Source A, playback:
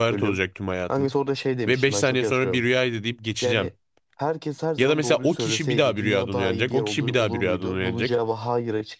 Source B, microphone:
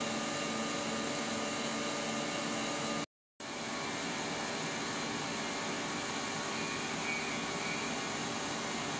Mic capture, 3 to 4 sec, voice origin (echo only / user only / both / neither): neither